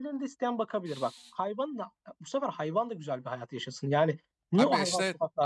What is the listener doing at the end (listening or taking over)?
taking over